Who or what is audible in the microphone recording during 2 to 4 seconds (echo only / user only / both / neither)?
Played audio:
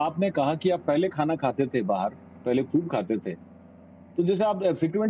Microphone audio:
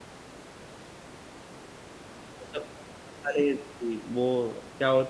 user only